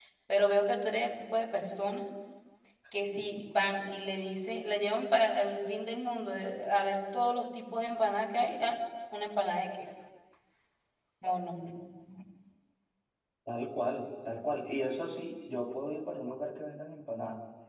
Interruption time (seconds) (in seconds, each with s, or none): none